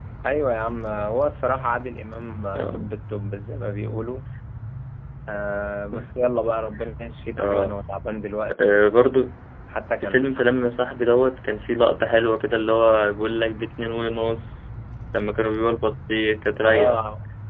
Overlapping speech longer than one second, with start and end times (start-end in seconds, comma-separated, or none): none